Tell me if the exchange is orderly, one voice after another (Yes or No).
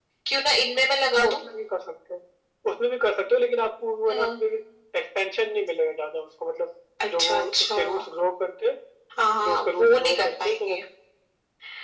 No